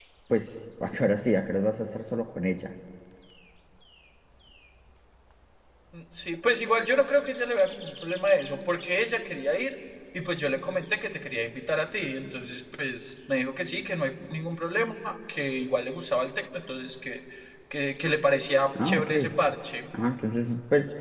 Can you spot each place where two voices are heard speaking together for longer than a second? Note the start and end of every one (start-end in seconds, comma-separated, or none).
none